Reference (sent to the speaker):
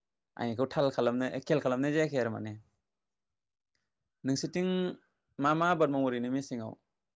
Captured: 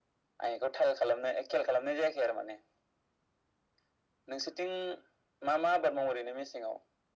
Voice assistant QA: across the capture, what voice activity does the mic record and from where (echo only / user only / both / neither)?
echo only